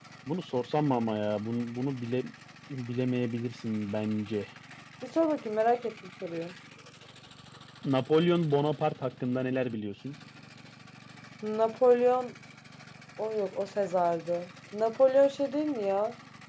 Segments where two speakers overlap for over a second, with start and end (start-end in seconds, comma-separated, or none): none